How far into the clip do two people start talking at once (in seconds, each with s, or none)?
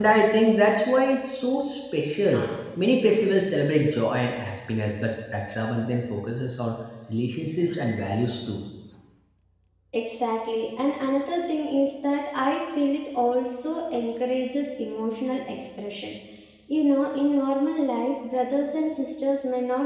none